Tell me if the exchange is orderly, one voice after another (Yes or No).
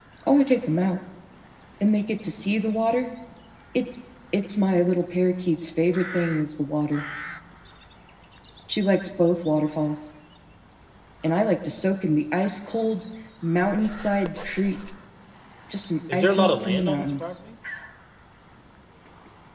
No